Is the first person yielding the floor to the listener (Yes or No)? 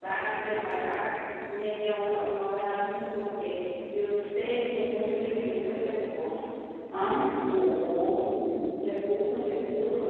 No